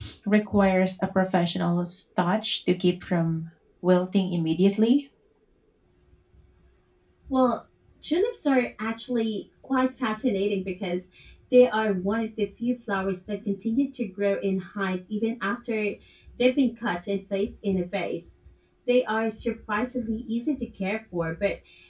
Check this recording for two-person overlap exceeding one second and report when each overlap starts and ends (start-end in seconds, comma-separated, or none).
none